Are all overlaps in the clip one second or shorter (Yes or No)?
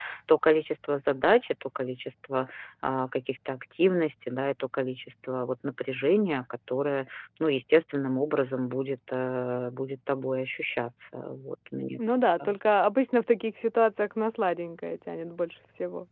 Yes